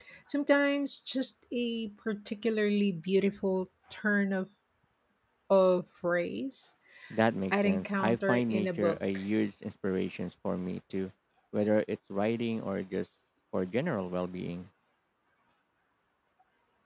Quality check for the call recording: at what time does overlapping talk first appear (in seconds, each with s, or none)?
7.5 s